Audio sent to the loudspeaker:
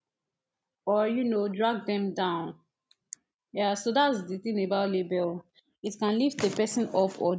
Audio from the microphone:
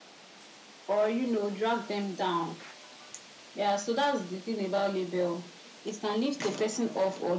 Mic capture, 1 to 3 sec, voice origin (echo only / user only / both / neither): echo only